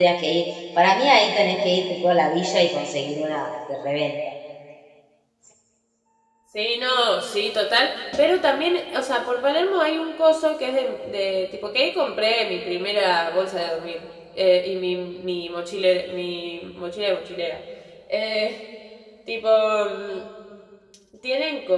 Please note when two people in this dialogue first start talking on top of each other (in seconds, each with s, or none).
none